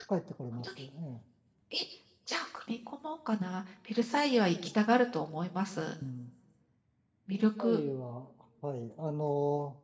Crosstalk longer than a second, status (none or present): none